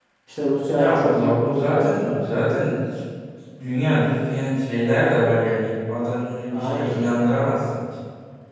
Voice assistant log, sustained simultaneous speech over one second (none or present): present